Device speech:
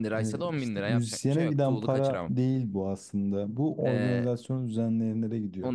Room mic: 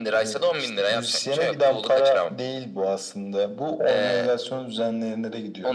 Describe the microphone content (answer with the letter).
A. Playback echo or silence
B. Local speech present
A